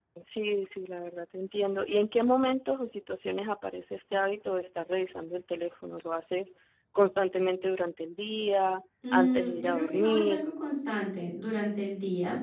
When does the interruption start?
9.0 s

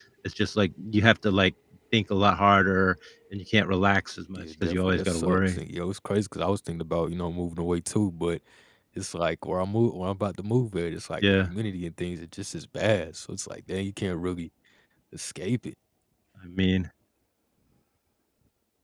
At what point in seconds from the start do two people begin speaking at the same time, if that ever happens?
4.4 s

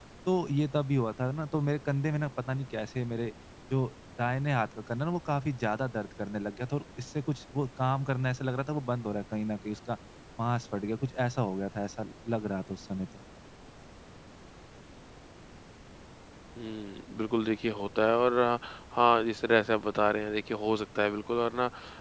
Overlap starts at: none

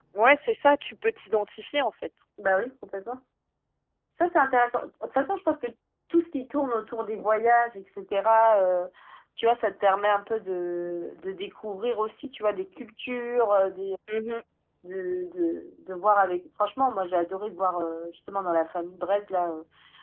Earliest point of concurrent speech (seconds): none

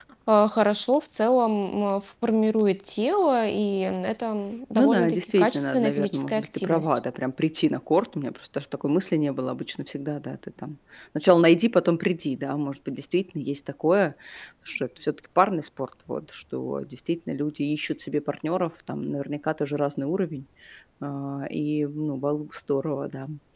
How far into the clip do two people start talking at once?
4.7 s

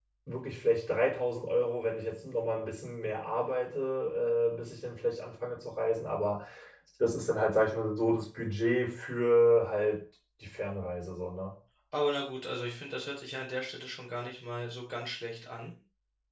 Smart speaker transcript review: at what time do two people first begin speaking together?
none

